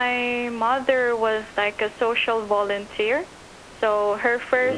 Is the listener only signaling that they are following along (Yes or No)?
Yes